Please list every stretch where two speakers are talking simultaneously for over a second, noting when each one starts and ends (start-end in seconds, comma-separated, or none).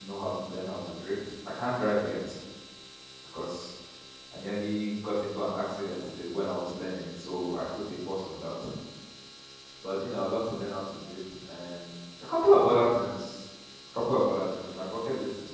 none